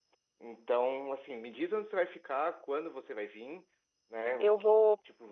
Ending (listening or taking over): listening